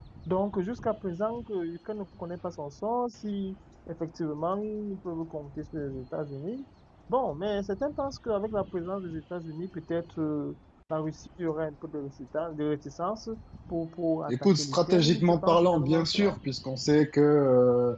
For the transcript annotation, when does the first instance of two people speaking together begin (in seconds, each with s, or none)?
14.3 s